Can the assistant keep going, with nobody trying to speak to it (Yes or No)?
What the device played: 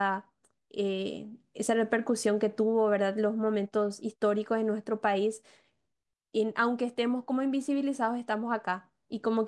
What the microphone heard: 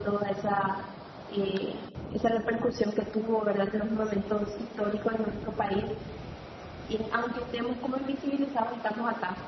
Yes